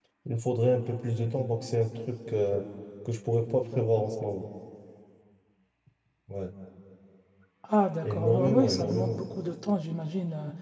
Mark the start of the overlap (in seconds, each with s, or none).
8.0 s